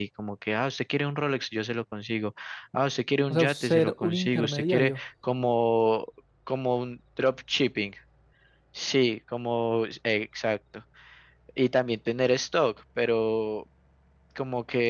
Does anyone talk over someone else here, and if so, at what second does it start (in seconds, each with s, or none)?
3.3 s